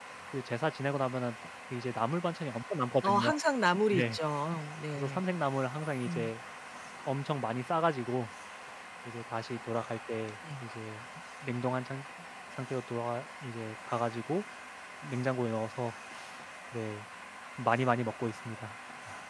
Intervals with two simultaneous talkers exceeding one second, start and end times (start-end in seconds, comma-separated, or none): none